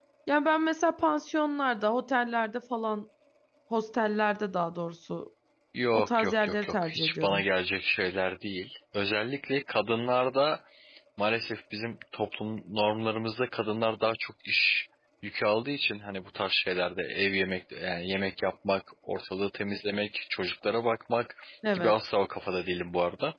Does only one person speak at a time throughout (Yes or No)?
No